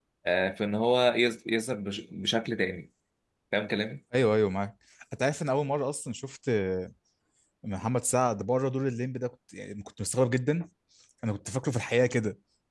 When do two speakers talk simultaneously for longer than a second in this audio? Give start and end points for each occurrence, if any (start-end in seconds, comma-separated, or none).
none